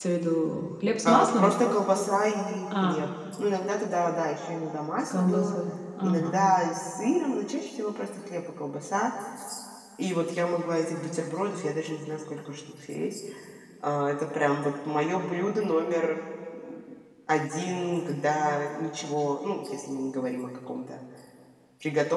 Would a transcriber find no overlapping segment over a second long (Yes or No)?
Yes